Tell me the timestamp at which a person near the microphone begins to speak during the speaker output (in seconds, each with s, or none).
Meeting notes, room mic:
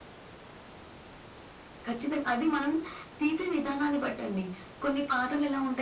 none